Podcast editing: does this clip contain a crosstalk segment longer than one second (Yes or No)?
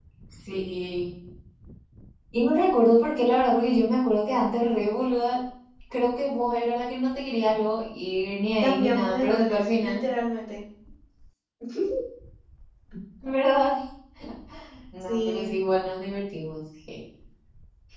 Yes